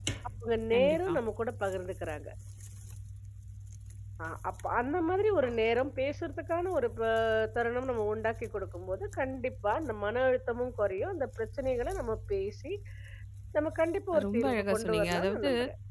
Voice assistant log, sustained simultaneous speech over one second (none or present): present